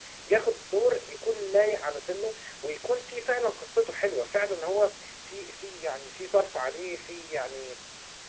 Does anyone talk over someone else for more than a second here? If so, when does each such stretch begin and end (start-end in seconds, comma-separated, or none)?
none